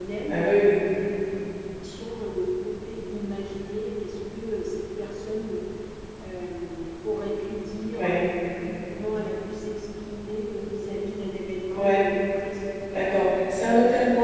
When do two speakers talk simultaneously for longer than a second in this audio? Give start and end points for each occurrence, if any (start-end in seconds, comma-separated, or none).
none